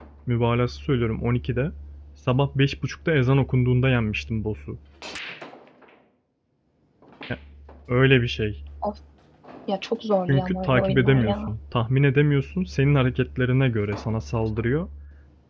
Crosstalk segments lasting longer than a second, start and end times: 10.3-11.5

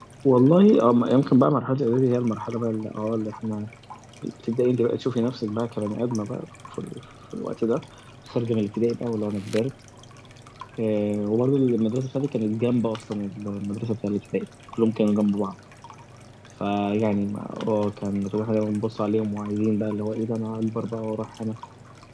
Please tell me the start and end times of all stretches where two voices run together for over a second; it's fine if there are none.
none

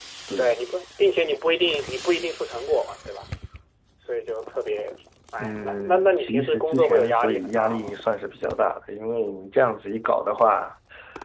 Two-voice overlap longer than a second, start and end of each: 5.4-7.9

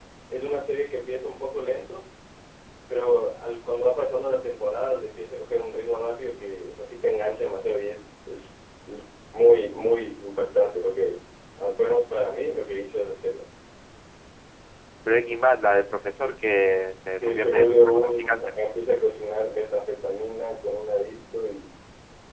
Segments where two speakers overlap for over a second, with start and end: 17.2-18.5

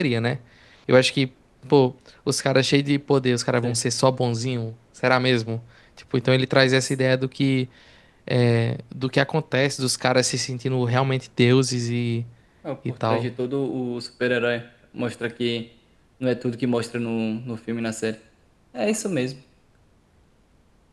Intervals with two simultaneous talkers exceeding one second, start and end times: none

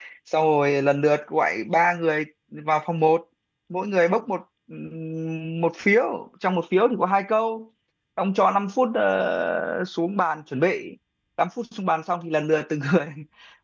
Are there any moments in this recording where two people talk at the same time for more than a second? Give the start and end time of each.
none

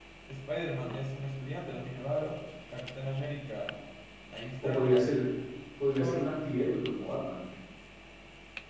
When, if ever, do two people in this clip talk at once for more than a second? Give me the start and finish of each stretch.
none

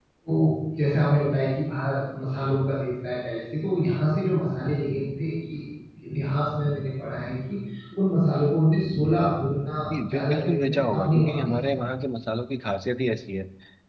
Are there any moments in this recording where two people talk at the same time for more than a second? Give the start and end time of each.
10.0-11.7

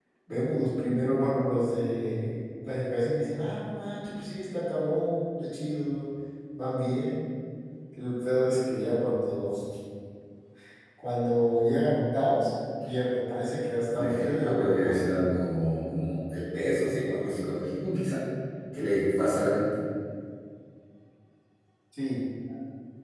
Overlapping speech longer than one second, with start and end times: 14.0-15.2

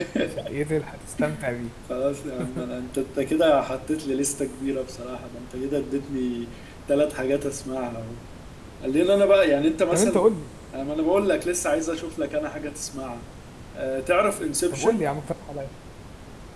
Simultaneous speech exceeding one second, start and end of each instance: none

